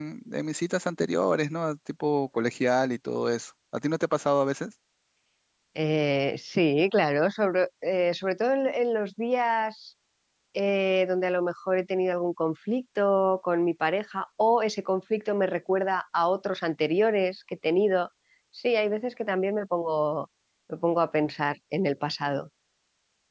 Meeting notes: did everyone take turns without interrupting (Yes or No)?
Yes